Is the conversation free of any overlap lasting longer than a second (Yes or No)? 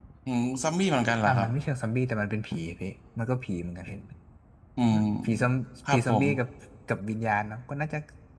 Yes